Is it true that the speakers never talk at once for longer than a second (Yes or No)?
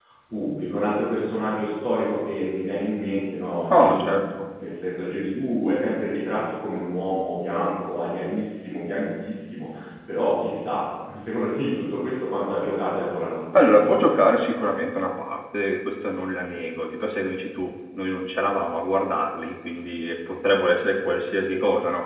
Yes